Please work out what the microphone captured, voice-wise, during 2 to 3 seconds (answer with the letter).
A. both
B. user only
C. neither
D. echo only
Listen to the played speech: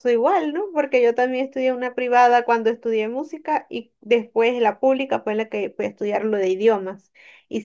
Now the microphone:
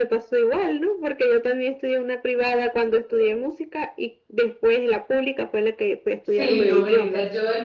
D